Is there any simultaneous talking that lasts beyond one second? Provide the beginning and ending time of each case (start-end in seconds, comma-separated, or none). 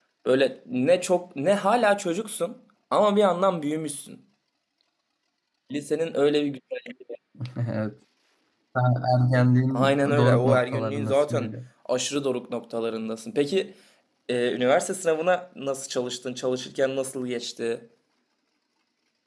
9.7-11.5